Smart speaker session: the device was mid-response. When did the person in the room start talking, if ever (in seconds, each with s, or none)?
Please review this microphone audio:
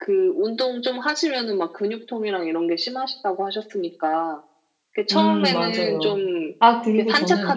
5.1 s